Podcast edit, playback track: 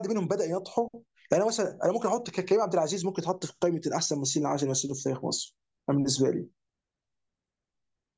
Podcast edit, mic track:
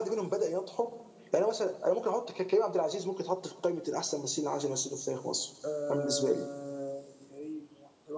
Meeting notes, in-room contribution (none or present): present